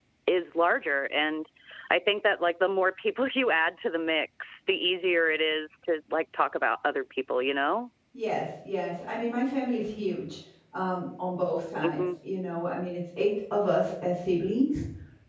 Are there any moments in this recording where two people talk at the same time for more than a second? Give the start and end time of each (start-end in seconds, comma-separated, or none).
none